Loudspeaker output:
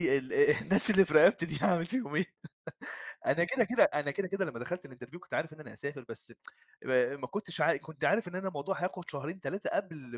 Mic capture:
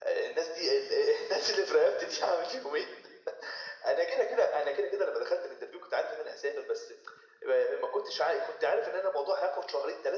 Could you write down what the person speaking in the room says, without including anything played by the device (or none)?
none